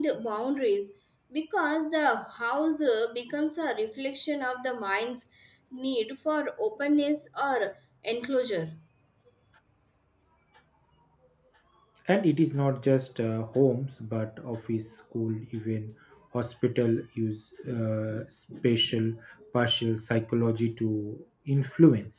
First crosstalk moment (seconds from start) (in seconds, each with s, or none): none